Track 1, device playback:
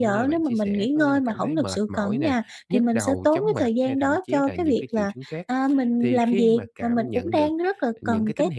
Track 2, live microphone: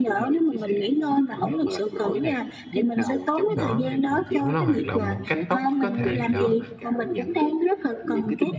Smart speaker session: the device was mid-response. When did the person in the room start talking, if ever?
3.5 s

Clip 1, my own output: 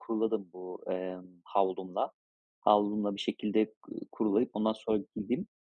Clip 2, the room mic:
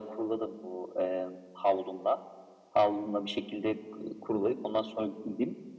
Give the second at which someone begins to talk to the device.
none

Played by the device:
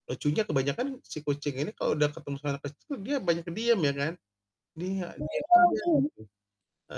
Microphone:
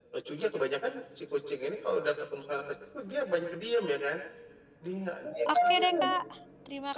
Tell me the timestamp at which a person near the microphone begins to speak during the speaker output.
5.5 s

